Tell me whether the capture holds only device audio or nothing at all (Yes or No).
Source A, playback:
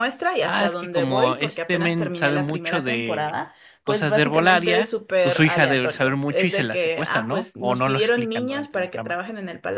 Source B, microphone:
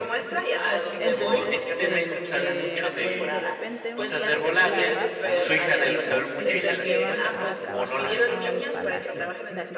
No